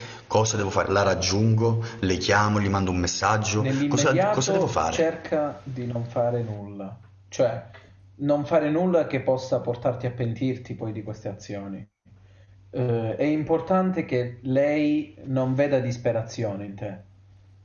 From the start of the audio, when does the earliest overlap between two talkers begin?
4 s

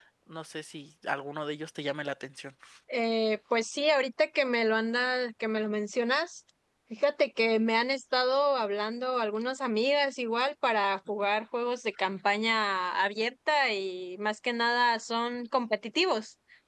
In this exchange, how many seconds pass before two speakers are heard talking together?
none

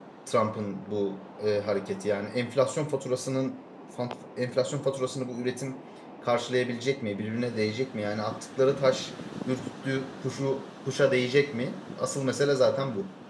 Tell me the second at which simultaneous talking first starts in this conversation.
none

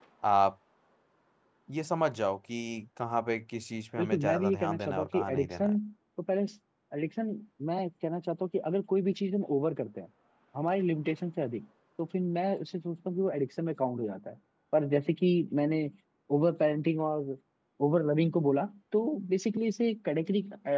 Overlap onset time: 4 s

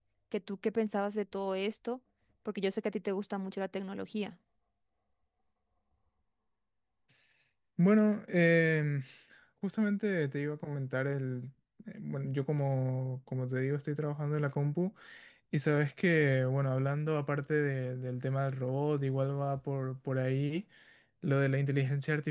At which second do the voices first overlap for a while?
none

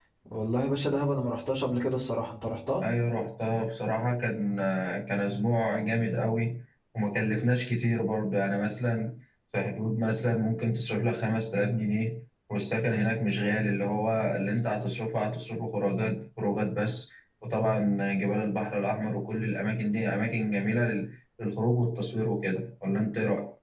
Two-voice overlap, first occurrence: none

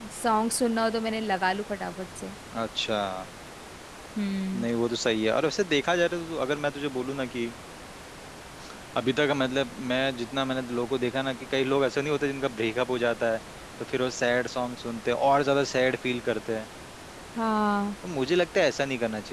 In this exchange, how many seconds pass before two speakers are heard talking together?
none

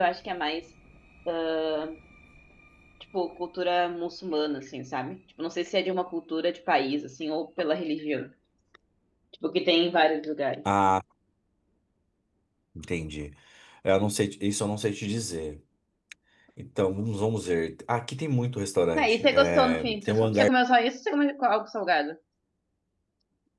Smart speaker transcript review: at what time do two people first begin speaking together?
19 s

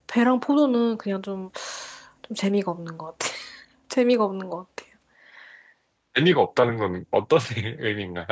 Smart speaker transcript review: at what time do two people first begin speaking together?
none

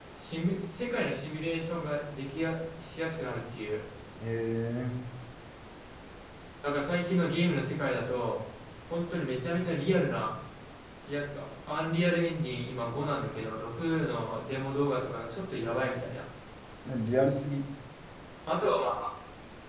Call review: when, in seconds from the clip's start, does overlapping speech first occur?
none

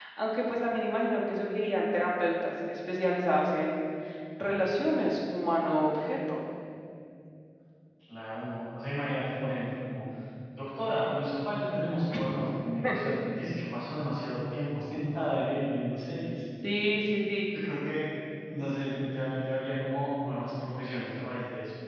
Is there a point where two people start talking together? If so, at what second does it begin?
none

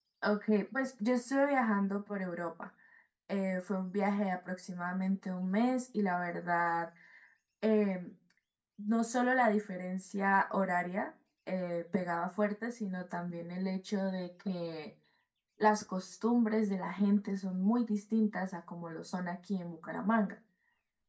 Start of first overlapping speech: none

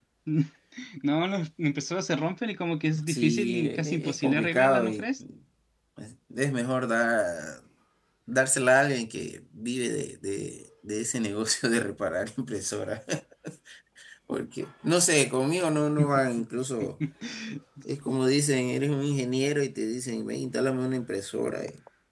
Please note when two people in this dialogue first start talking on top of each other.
3 s

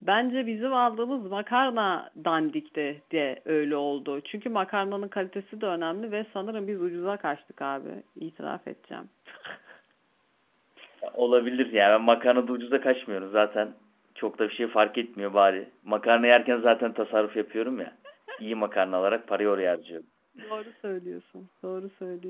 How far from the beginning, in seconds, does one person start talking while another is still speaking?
none

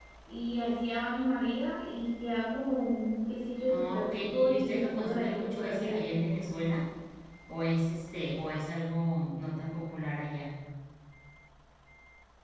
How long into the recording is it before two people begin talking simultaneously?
4 s

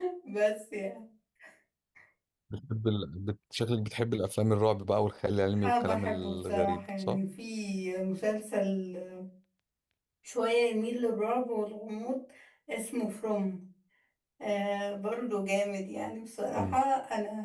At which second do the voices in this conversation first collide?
6 s

